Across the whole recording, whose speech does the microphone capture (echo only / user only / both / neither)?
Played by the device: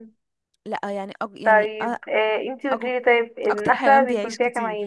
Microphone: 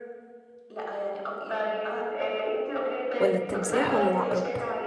both